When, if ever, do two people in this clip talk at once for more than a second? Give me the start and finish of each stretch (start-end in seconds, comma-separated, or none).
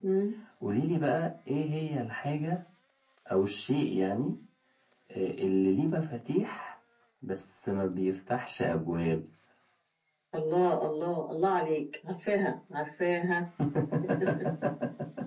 none